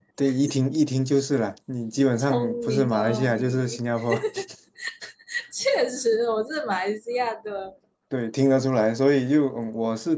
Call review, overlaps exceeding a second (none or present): present